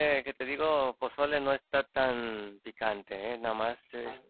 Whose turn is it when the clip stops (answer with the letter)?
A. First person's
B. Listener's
B